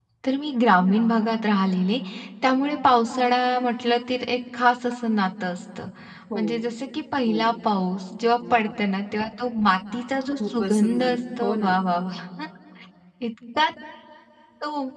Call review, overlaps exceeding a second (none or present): present